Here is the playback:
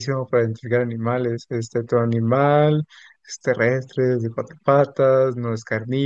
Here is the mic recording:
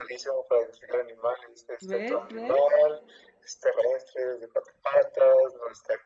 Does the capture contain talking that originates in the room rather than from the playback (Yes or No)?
Yes